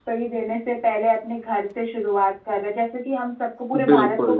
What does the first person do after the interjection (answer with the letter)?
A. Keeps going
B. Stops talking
A